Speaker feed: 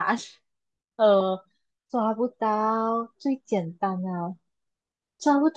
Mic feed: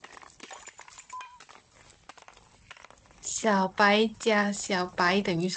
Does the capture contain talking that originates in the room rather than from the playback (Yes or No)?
Yes